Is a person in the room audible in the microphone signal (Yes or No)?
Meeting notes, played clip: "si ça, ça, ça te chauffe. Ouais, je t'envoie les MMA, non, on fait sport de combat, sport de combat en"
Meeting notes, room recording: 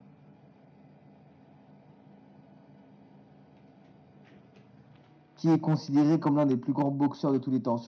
Yes